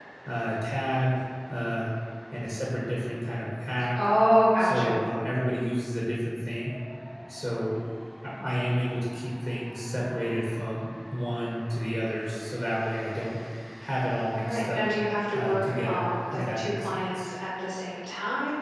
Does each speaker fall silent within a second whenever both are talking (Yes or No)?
No